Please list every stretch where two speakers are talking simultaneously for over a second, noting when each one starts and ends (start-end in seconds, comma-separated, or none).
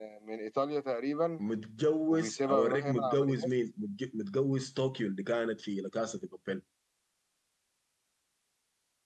2.1-3.5